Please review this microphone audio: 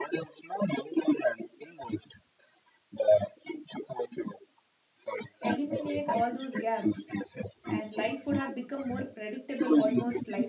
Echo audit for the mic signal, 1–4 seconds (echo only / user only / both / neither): echo only